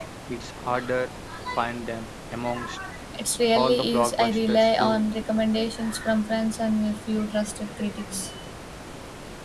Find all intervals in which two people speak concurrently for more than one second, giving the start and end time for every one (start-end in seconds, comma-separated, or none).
3.5-5.0